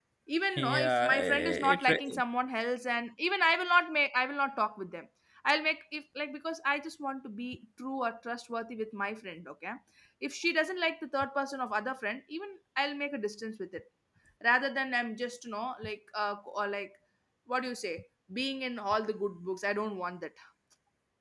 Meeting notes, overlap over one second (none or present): present